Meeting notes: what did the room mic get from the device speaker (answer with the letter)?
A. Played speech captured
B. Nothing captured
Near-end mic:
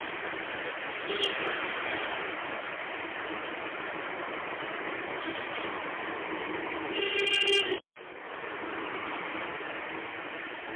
B